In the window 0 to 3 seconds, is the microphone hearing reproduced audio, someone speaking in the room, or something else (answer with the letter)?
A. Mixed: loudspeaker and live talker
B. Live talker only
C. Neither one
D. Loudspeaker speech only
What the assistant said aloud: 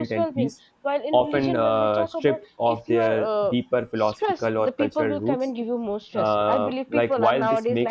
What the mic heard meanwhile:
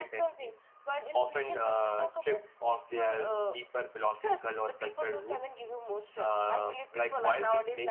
D